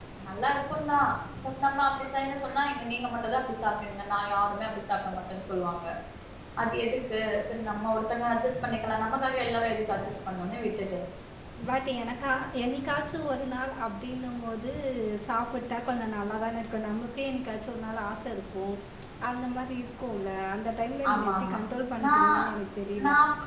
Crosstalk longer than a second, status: none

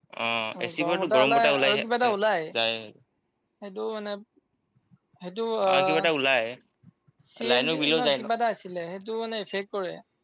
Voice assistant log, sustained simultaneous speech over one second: present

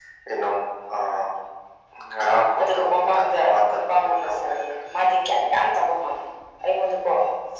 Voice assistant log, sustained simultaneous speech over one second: present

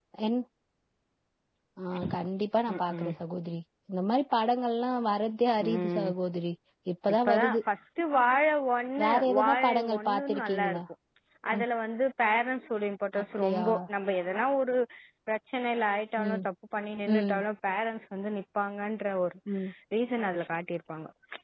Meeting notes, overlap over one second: present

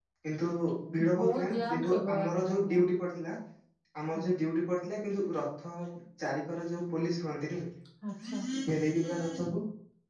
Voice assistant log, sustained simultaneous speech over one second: present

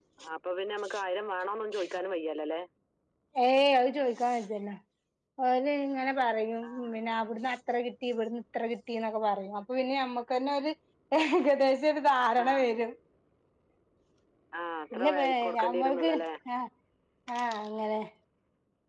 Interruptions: present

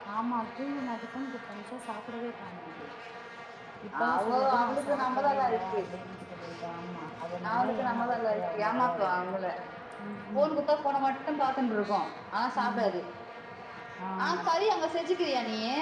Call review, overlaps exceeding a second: present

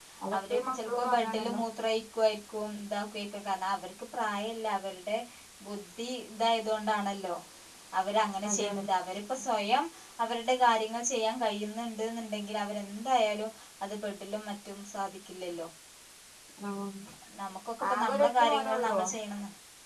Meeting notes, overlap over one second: present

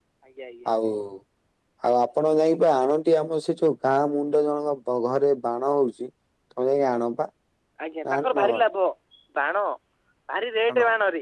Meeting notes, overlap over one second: none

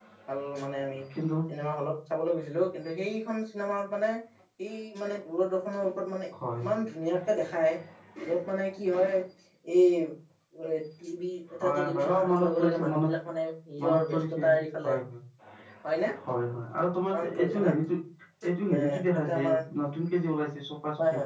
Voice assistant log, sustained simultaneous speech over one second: present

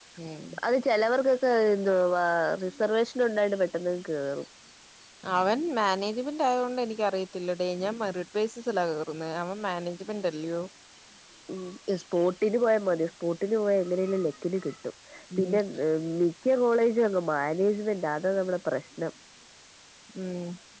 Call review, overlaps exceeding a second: none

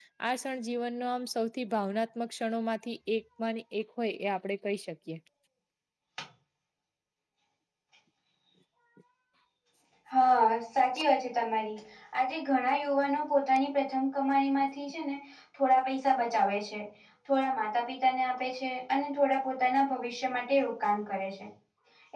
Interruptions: none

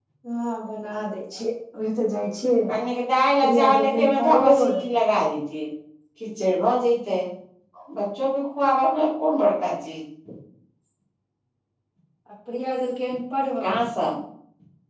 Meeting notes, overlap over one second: present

